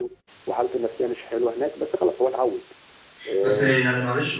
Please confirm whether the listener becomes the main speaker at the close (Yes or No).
Yes